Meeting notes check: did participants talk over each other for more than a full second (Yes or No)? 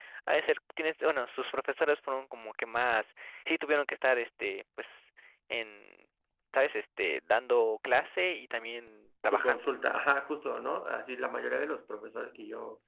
No